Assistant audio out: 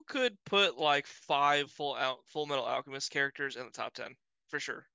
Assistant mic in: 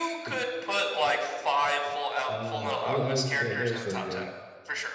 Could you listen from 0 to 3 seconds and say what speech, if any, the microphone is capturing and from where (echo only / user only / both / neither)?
both